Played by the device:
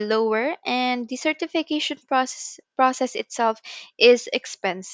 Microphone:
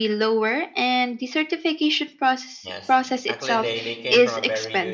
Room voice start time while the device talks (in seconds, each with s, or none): 2.6 s